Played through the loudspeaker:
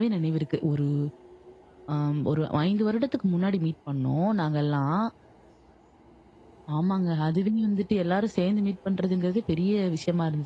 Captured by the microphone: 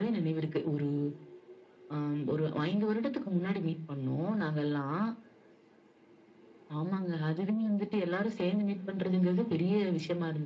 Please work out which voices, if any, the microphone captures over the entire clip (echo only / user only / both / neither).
echo only